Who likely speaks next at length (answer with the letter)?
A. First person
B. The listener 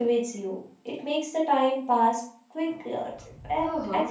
B